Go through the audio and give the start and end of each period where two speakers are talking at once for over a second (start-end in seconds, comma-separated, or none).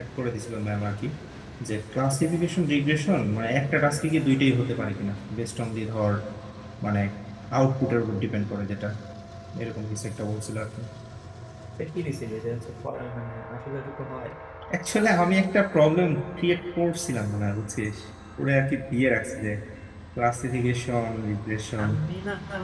none